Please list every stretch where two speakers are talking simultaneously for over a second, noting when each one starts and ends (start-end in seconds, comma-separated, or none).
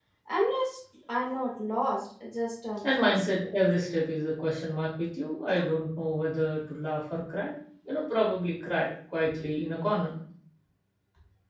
none